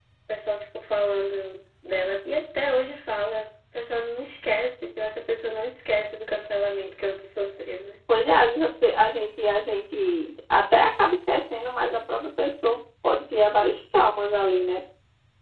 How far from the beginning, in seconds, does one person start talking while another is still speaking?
none

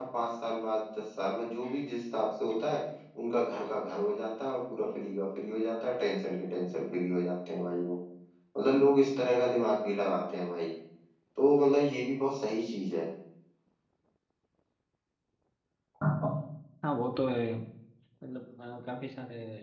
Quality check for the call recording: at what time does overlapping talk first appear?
none

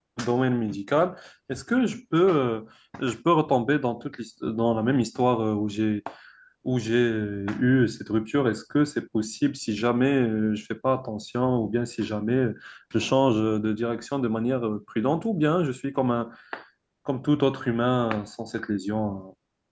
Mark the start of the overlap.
none

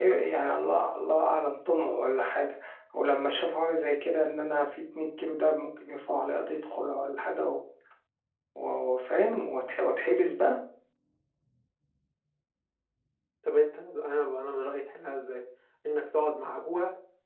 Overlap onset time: none

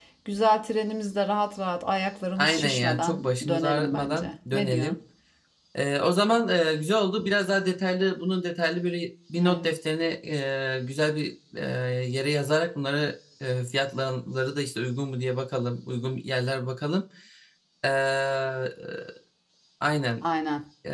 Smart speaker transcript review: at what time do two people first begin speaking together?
2 s

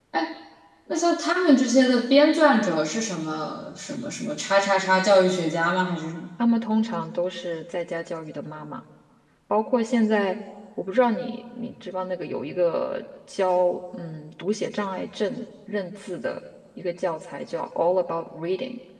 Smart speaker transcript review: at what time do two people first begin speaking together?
none

